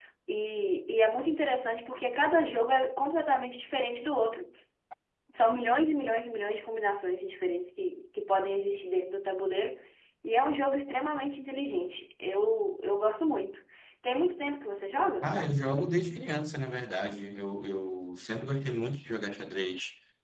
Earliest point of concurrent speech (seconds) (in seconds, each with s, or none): none